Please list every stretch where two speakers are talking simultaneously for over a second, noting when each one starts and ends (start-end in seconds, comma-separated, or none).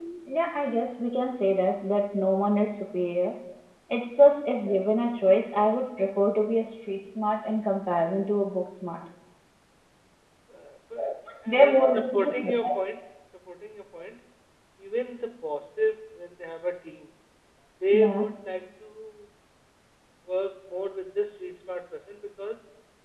11.5-12.7